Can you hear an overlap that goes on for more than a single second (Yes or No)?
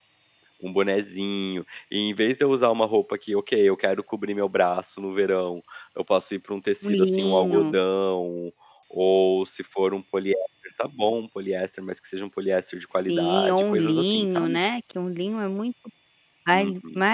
Yes